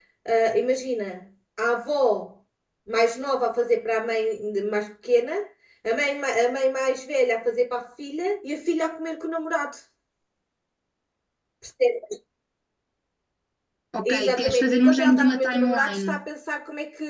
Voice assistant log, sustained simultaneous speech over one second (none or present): present